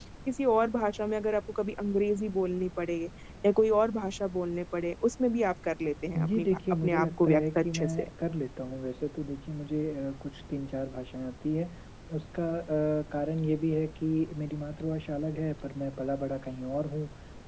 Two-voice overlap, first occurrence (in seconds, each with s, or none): 6.2 s